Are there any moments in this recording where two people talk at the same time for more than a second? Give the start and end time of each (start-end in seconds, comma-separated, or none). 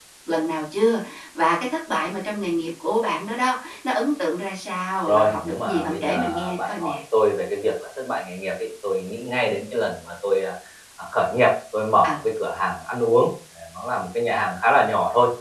5.1-7.0